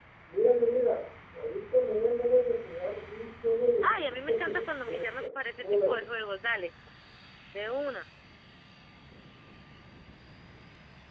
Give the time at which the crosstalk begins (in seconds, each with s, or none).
3.8 s